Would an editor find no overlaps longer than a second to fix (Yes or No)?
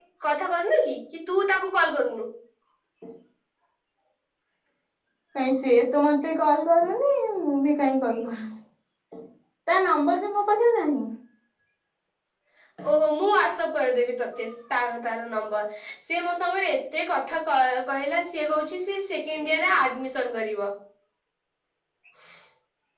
Yes